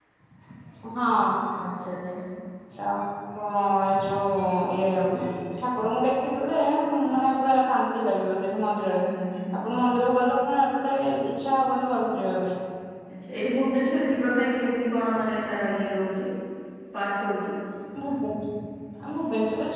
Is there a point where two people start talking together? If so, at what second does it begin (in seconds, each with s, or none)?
none